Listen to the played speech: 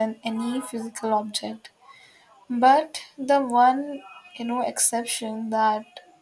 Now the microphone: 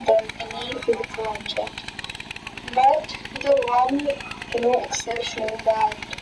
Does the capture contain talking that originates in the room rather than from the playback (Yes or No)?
No